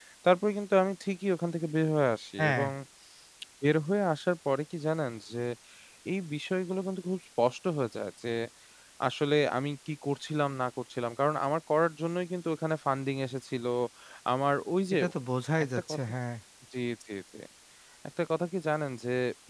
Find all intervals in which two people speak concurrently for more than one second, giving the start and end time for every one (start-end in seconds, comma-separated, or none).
none